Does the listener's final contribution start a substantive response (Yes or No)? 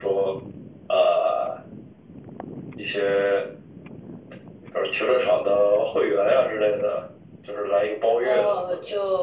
Yes